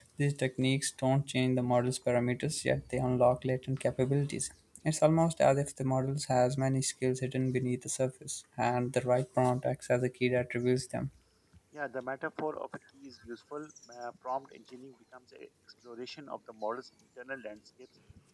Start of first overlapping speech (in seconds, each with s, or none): none